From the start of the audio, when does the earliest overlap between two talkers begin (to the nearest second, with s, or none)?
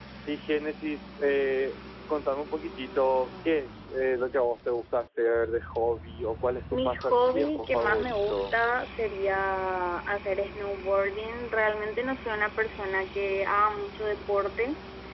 7 s